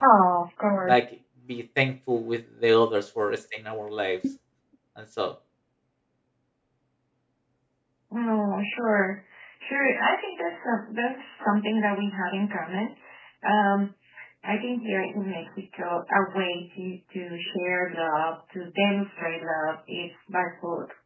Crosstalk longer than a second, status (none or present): none